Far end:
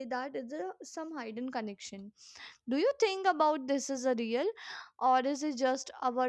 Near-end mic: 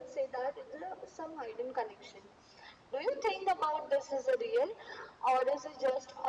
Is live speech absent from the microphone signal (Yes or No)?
Yes